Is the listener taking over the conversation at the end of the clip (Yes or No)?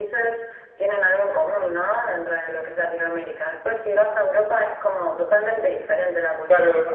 Yes